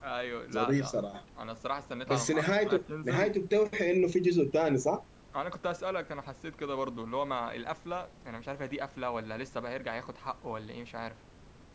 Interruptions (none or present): present